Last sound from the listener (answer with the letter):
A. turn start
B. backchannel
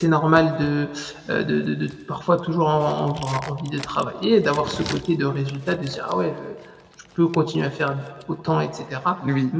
B